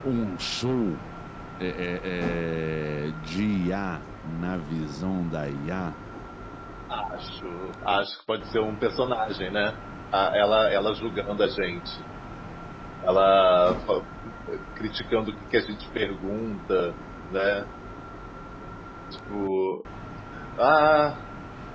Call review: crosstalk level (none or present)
none